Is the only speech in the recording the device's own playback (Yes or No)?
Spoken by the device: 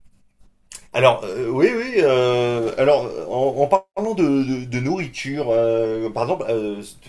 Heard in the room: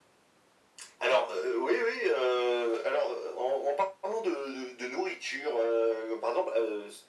Yes